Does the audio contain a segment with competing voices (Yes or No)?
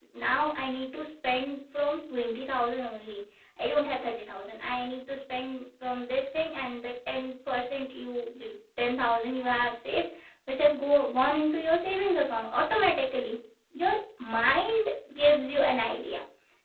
No